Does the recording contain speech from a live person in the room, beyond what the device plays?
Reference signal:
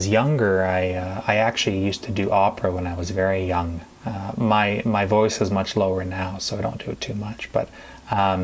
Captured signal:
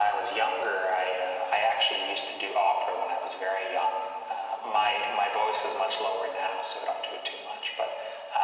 No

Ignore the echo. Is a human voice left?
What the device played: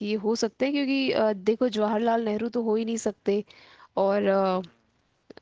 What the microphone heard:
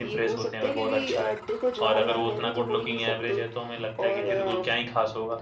Yes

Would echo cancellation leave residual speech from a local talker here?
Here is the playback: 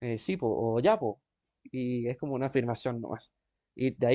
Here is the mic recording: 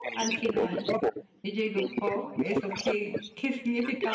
Yes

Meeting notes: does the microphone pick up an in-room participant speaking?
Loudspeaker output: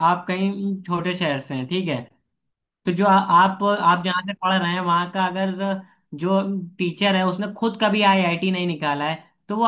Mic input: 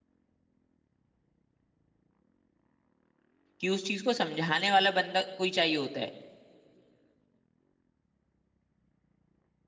Yes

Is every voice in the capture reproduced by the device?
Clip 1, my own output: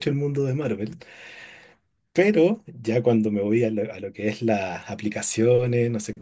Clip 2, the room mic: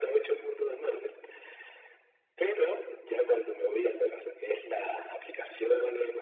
Yes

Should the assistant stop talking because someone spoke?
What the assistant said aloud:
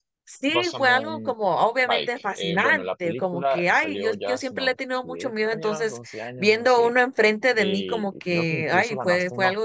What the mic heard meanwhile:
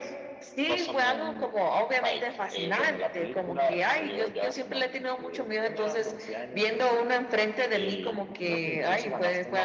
No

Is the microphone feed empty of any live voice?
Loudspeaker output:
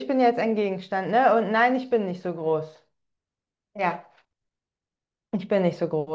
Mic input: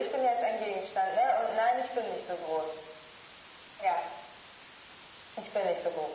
Yes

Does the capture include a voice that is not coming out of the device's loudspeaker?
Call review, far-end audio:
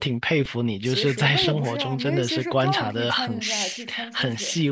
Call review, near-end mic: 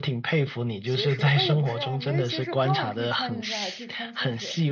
No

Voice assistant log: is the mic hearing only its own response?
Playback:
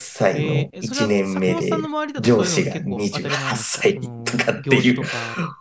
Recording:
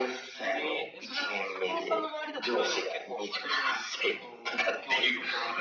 Yes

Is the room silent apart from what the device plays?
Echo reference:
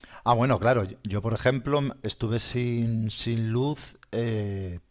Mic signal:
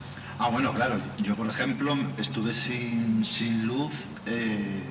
Yes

